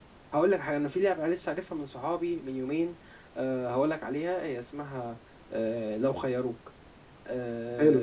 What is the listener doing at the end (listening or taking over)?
listening